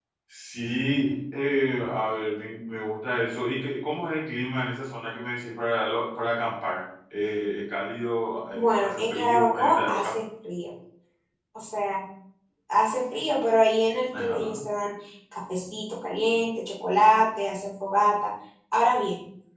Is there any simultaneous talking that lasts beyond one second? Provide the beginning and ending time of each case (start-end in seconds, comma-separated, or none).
8.5-10.2